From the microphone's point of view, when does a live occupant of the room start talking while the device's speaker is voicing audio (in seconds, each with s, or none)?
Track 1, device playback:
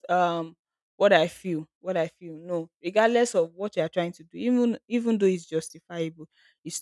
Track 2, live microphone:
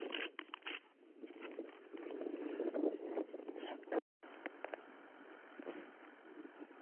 none